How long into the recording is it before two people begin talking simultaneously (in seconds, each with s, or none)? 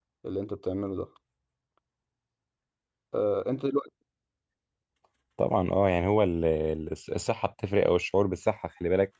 none